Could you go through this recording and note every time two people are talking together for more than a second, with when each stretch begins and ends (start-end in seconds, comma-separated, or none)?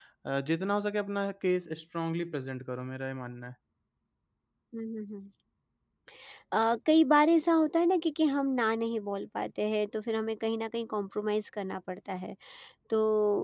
none